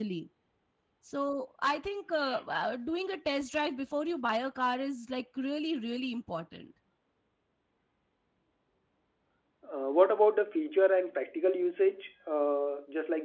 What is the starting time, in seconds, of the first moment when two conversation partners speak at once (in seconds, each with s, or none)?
none